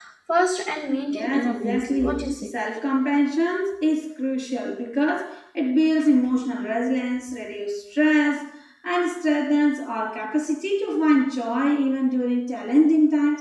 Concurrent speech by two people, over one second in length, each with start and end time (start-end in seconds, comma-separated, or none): 1.1-2.5